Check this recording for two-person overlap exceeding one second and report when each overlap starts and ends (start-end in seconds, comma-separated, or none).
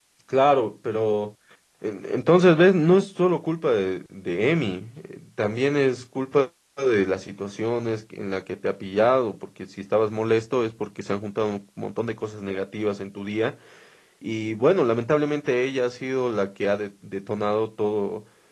none